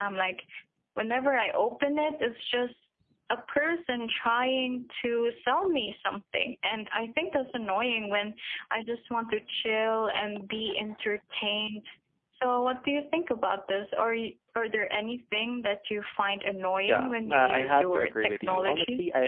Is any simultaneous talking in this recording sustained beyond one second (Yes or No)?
Yes